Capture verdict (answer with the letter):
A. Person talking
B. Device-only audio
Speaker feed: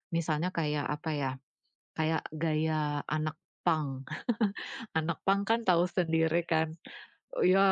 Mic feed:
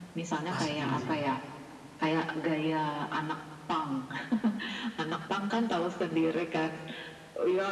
A